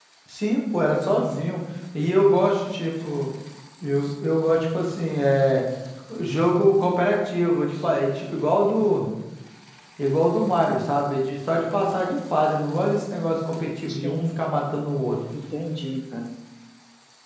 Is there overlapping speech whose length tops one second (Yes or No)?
No